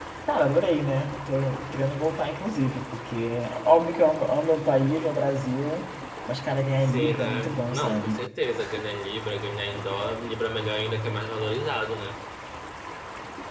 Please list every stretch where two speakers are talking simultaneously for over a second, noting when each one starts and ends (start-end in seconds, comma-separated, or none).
6.8-8.2